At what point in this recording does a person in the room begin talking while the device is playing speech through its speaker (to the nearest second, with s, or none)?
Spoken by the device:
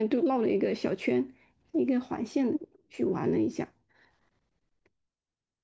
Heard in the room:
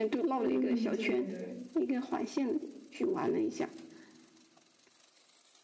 0 s